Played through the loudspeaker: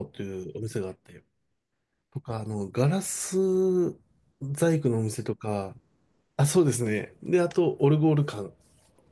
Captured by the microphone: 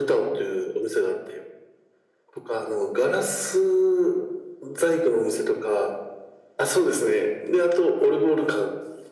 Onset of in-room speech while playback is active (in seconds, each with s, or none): none